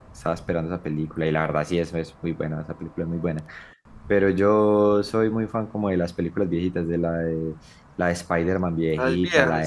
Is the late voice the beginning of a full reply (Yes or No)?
No